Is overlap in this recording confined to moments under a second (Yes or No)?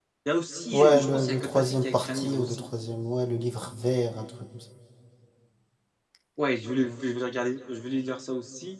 No